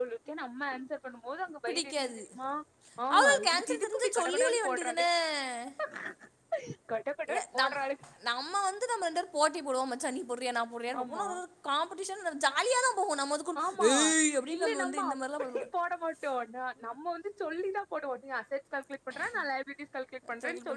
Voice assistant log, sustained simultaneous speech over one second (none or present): present